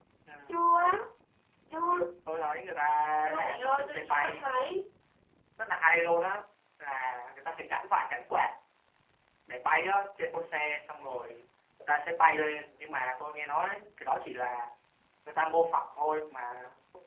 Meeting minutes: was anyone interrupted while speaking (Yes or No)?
Yes